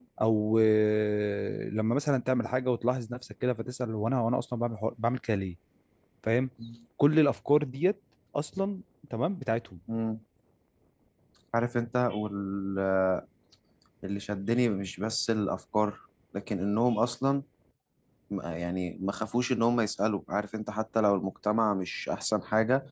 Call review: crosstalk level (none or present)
none